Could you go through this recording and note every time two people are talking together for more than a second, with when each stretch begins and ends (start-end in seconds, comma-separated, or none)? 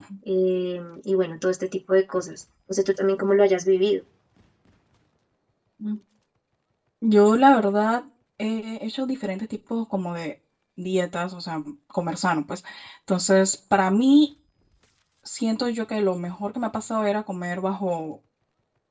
none